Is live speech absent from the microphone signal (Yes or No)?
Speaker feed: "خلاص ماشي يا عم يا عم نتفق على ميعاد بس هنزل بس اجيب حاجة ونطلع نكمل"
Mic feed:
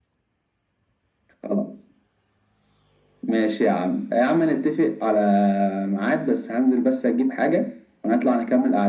Yes